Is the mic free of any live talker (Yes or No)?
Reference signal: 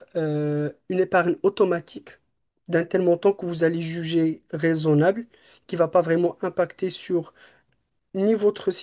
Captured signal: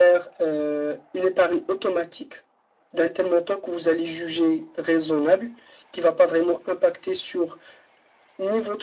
Yes